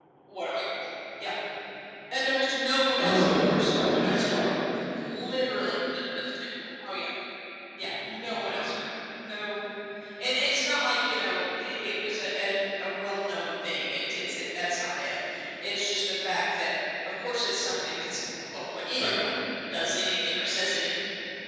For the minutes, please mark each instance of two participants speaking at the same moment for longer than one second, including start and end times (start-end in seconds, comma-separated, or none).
3.0-4.4